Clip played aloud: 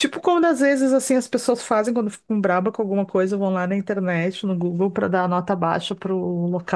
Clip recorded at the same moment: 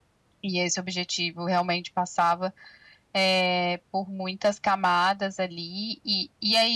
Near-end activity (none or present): present